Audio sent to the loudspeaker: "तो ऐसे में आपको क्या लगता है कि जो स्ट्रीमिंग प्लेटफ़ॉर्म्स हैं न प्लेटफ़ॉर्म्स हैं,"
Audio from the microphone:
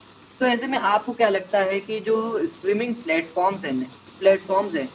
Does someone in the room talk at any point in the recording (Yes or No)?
No